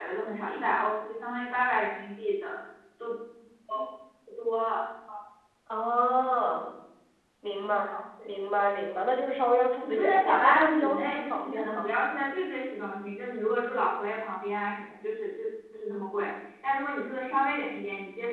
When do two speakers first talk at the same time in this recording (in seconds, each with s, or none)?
9.8 s